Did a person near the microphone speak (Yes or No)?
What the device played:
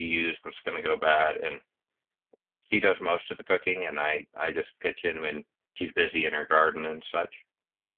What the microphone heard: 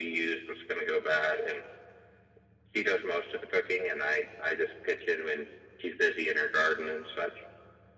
No